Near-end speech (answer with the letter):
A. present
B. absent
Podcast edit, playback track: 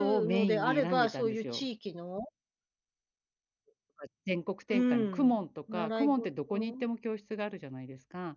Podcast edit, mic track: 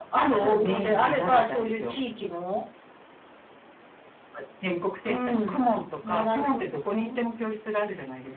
B